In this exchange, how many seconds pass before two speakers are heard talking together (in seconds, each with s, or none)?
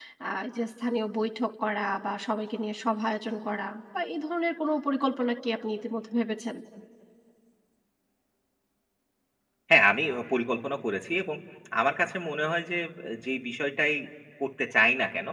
none